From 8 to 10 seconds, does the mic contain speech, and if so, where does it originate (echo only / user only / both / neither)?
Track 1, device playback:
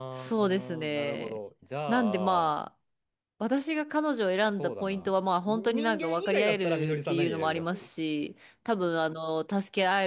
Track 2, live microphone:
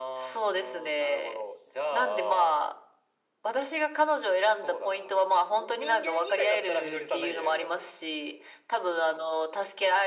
echo only